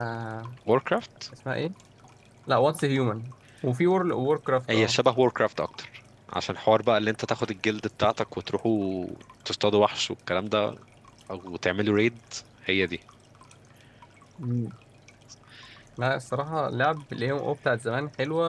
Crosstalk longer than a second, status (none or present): none